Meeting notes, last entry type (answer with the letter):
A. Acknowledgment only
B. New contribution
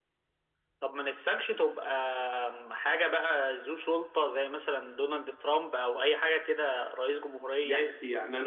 B